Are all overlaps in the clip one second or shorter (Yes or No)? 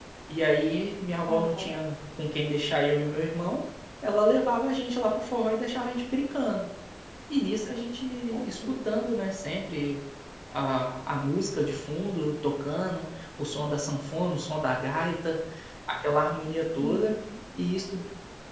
Yes